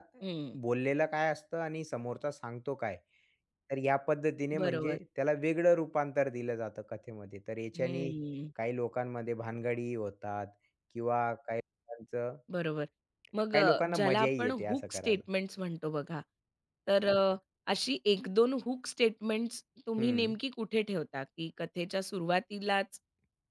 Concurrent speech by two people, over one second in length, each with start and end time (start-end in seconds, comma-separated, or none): 13.5-15.2